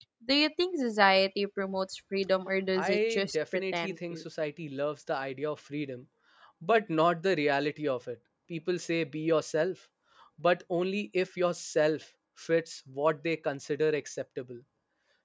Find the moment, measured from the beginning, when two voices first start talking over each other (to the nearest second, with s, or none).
3 s